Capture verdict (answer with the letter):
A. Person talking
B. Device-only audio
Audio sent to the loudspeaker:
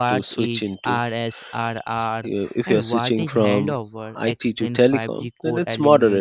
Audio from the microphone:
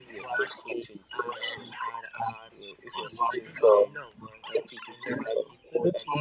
B